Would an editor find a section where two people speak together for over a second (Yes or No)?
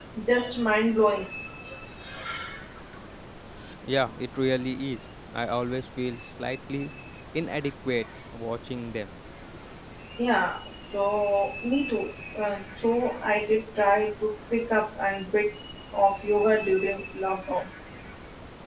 No